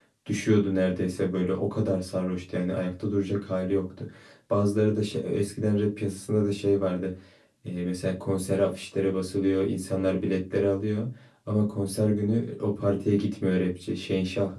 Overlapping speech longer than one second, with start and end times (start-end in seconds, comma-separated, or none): none